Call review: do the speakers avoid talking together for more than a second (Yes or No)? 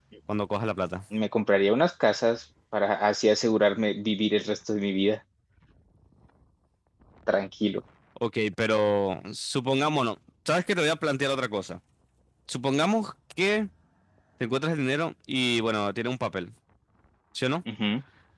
Yes